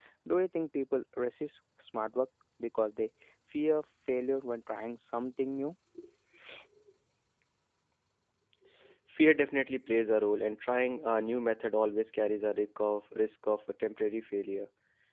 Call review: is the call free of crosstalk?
Yes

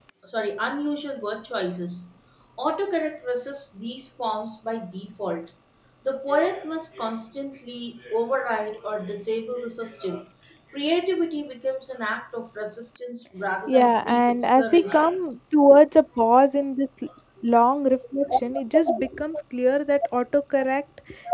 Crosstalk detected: Yes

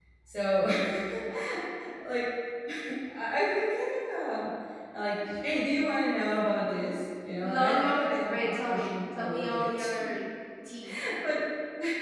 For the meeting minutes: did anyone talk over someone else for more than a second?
Yes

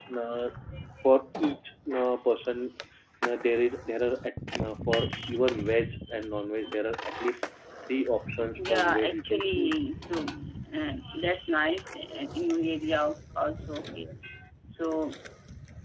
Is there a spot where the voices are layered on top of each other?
Yes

